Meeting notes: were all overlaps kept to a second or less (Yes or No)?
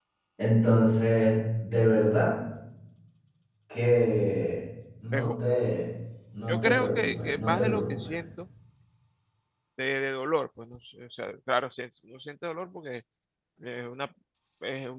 No